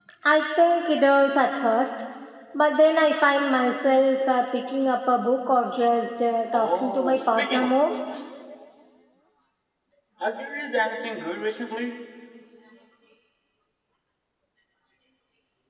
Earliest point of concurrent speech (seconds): 6.5 s

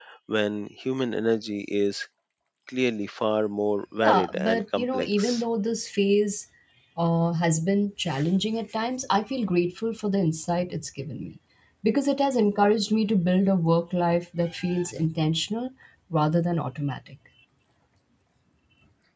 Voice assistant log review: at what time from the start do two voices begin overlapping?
4.0 s

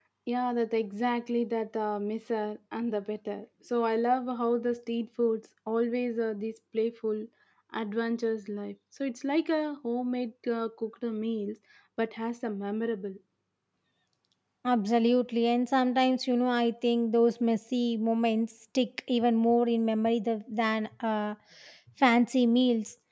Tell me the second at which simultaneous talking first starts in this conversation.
none

